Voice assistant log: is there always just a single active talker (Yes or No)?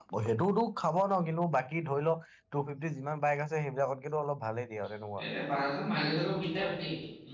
Yes